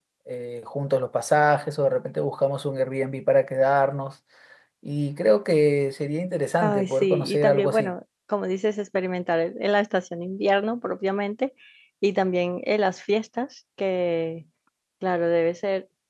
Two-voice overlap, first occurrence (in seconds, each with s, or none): 6.6 s